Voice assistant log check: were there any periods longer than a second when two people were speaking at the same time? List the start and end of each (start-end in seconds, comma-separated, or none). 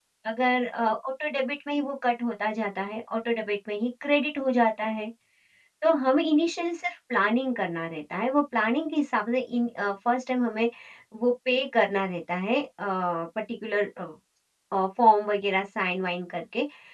none